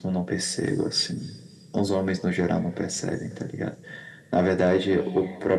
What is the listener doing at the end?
listening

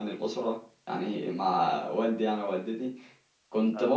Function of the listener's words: listening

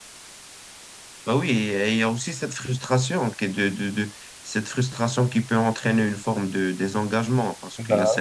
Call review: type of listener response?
listening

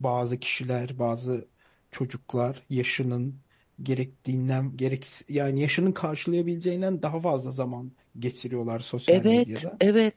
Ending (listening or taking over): taking over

